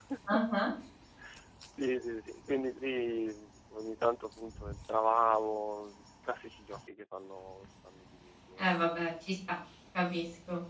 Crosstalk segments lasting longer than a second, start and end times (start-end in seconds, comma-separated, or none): none